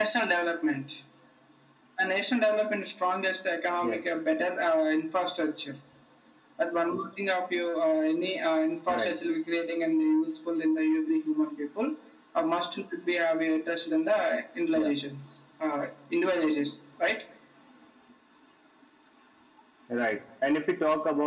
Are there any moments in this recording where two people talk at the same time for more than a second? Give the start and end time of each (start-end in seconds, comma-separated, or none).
none